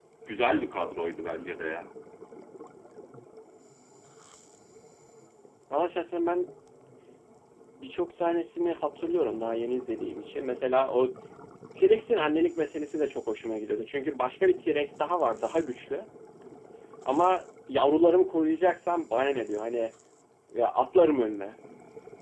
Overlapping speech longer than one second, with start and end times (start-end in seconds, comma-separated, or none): none